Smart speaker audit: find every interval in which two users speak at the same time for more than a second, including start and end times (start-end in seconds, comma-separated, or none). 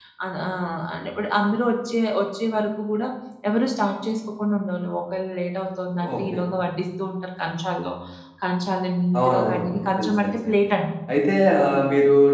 9.2-10.5